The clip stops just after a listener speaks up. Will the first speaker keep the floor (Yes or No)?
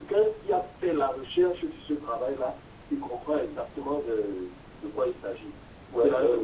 No